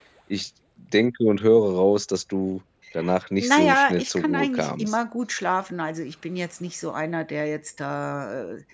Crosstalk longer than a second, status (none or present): present